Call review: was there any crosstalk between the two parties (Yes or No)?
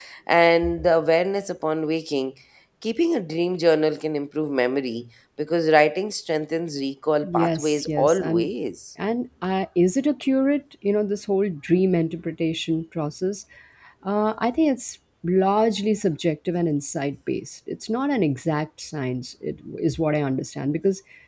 Yes